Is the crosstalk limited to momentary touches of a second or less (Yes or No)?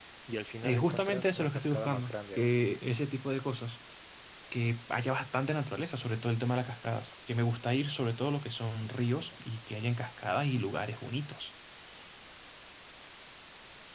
No